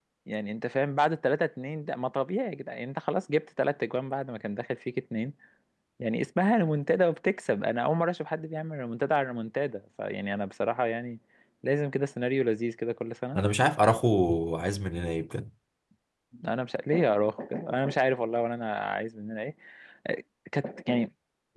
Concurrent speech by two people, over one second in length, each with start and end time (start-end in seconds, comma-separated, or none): none